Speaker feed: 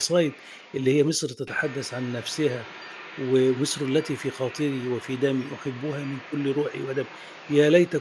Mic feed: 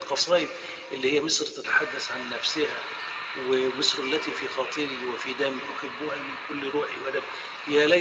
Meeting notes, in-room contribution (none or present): none